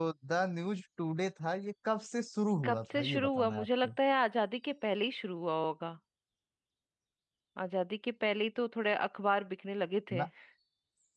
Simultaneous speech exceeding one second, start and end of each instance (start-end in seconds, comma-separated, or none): 2.6-3.9